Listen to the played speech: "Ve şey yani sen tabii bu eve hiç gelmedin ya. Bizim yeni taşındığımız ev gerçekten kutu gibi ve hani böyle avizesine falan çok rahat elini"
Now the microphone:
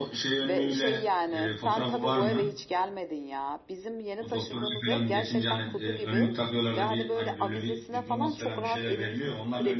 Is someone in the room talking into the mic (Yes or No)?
Yes